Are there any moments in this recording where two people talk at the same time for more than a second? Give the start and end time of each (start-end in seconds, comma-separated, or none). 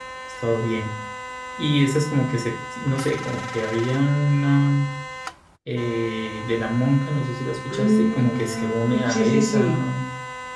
7.7-9.7